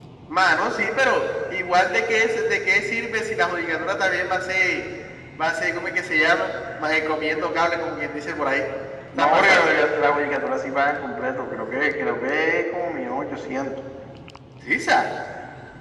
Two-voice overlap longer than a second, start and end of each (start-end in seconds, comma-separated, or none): none